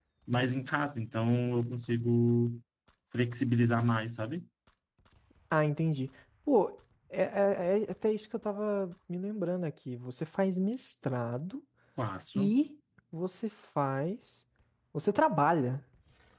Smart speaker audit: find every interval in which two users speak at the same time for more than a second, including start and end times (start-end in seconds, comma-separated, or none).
none